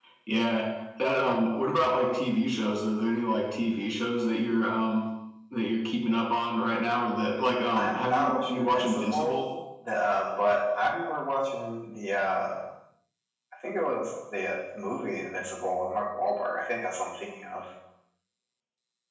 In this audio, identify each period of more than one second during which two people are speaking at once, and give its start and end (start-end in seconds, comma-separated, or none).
7.7-9.4